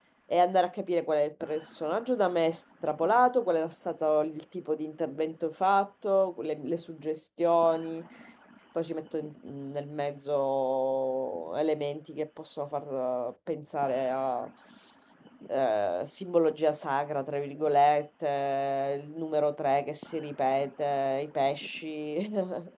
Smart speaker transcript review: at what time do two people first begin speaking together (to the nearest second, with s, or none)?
none